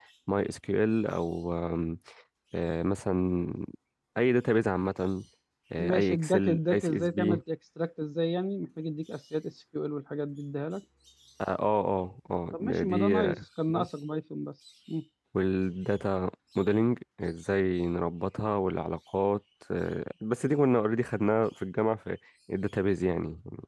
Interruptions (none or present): present